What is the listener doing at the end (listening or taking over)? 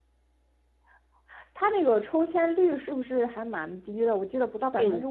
taking over